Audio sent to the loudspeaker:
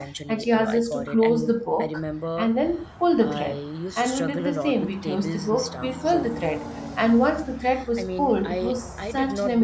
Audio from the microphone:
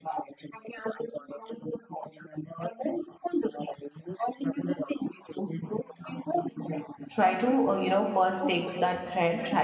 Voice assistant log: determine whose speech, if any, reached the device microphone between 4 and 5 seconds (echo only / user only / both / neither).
echo only